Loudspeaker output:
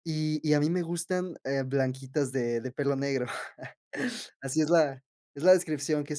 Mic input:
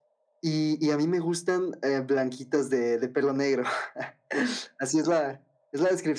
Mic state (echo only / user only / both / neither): echo only